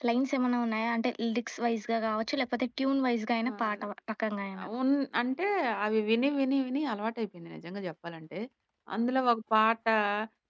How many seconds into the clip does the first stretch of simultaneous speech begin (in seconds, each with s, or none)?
none